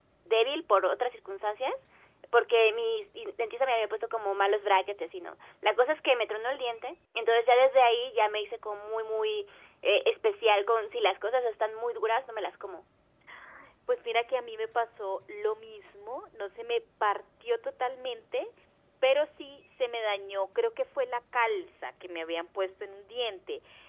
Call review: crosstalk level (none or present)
none